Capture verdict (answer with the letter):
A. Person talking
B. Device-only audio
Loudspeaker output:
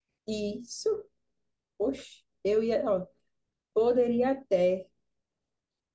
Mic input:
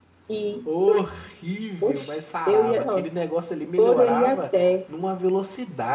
A